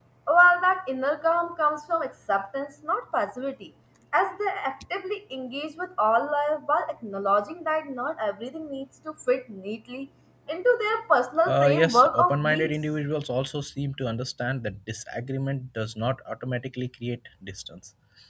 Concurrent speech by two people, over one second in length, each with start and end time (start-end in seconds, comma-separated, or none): 11.4-12.7